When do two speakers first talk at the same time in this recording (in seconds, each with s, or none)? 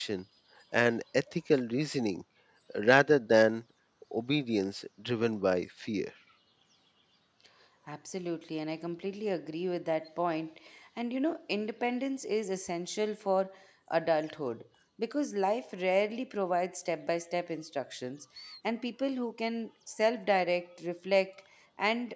none